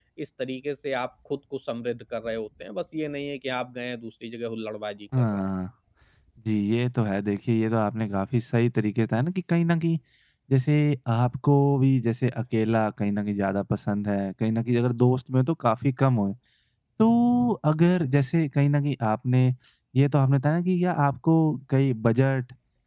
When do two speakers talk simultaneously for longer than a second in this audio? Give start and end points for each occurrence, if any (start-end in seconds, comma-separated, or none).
none